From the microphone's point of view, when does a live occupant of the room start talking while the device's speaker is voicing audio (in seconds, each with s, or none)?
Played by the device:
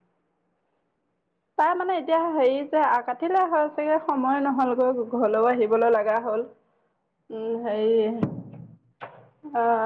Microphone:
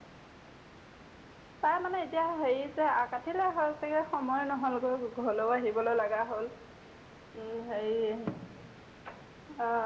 none